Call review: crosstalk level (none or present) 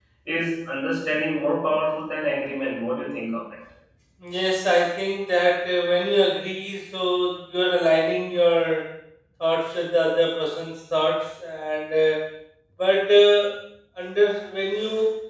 none